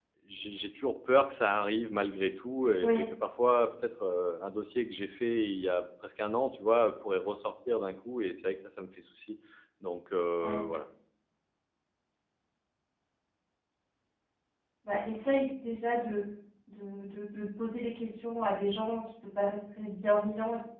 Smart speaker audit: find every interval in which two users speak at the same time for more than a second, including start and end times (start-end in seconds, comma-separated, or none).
none